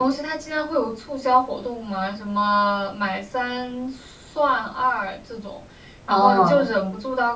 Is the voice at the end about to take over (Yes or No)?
No